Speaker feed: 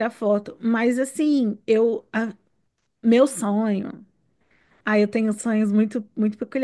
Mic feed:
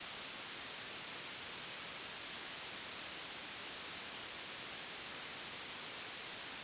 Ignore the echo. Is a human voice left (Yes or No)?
No